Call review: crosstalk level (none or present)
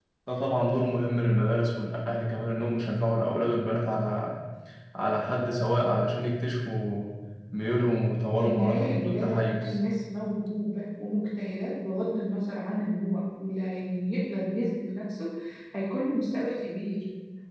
present